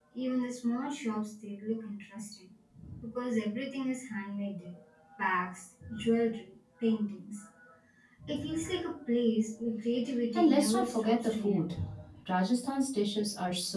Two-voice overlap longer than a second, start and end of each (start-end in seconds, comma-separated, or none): 10.3-11.7